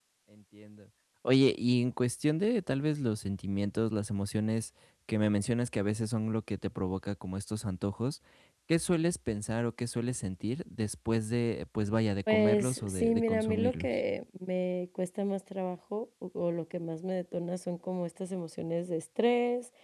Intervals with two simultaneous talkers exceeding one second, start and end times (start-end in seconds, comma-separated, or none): 12.3-13.9